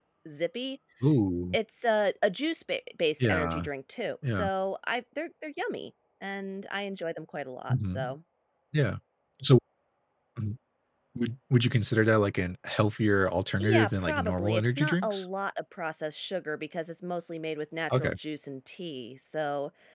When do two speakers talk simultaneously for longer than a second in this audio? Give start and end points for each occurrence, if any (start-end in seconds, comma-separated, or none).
13.6-15.2